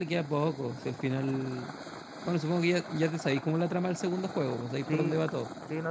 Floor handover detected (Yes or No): Yes